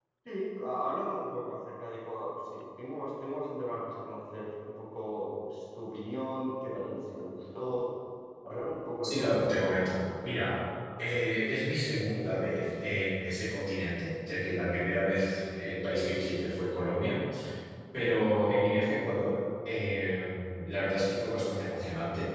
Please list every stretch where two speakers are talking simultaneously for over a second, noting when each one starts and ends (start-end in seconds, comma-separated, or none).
none